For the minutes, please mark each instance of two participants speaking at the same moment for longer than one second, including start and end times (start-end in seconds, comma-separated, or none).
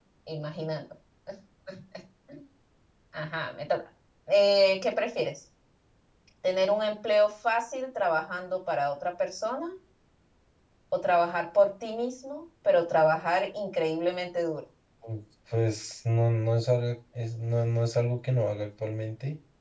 none